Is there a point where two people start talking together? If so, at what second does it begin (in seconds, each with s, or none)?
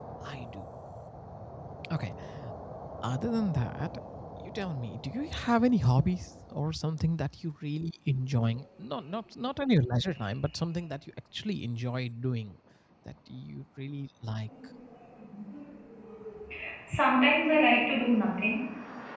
none